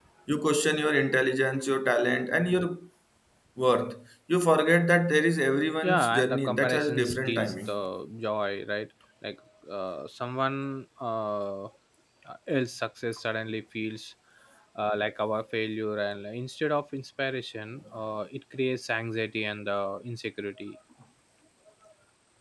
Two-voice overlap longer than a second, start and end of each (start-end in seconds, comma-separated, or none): 5.8-7.7